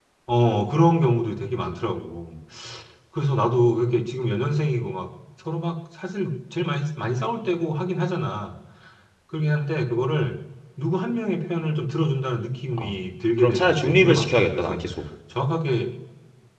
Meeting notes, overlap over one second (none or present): present